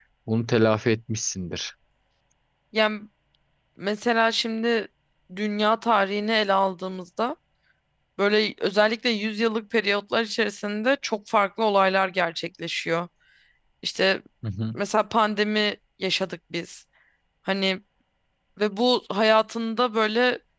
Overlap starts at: none

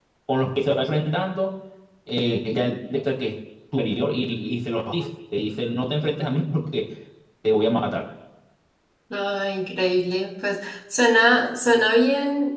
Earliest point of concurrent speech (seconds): none

